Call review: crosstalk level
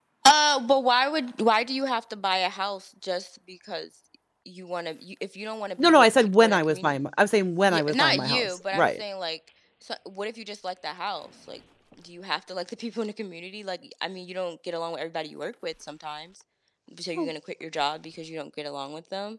present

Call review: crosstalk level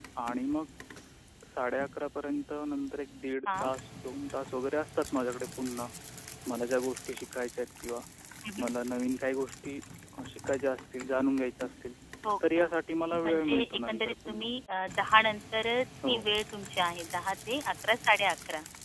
present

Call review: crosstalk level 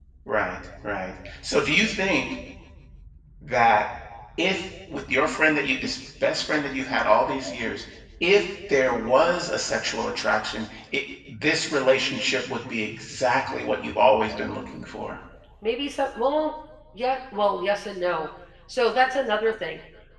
none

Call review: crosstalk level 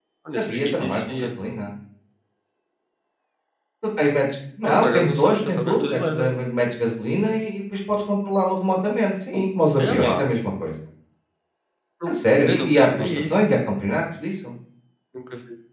present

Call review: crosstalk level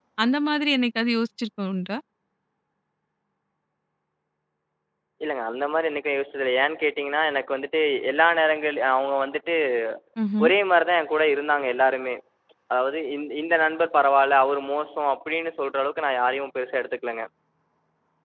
none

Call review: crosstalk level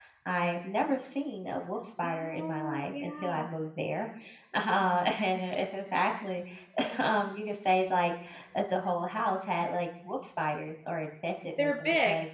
present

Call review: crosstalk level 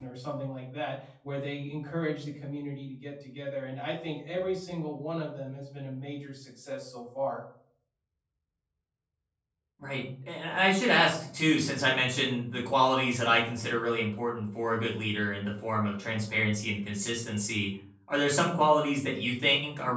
none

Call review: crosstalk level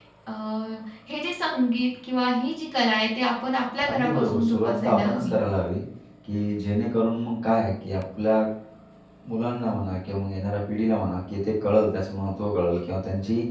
present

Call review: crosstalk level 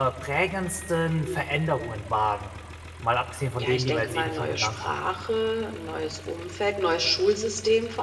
present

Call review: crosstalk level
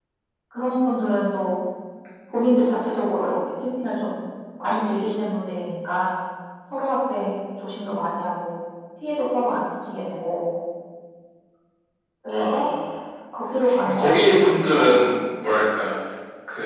present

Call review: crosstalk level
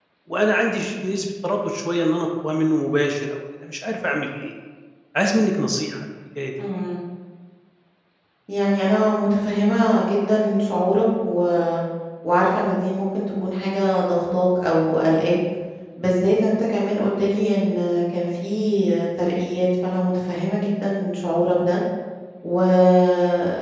none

